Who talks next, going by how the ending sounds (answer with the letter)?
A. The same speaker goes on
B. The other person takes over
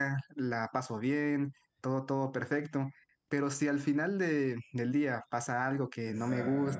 A